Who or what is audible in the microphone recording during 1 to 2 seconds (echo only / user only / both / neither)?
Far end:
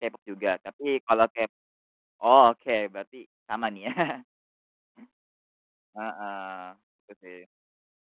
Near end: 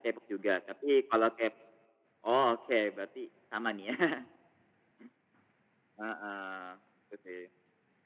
echo only